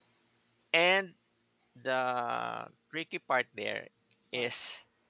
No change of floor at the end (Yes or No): Yes